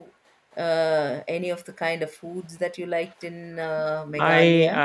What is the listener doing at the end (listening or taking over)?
taking over